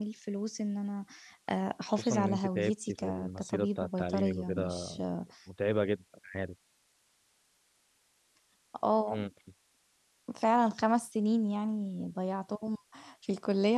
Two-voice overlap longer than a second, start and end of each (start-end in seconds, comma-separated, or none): 1.9-4.9